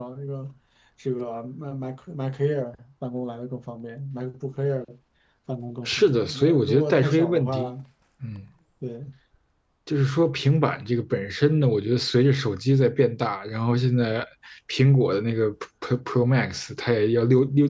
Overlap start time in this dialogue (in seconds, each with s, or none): 5.9 s